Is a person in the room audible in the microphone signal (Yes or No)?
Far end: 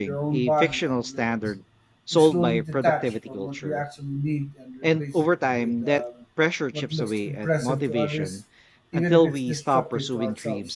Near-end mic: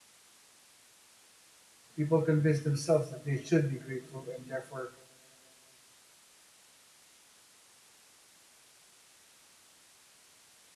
Yes